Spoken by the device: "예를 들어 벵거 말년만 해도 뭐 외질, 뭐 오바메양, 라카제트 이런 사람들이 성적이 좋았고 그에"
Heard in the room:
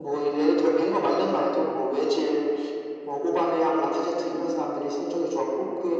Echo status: present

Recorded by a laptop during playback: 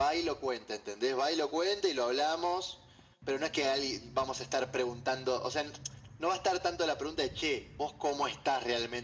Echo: present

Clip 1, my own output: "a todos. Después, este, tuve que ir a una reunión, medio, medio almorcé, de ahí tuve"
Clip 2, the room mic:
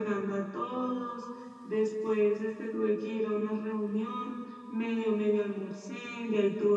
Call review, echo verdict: present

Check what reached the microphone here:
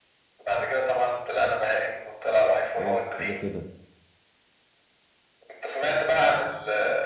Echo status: present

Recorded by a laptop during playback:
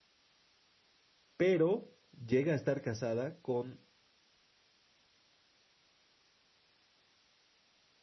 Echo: none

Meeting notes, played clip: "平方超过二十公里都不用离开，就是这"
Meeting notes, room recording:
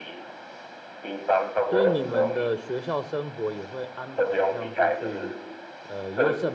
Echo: present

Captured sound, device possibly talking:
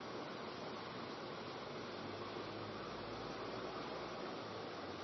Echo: none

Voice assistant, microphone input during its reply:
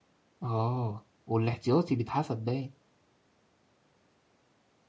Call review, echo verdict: none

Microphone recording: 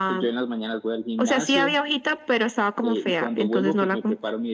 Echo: present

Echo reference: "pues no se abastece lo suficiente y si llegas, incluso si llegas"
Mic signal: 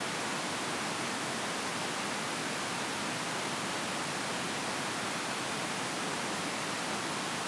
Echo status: none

